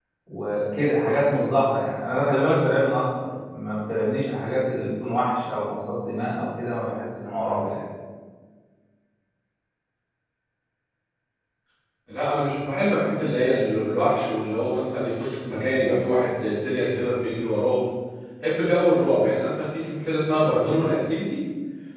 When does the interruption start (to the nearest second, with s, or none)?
none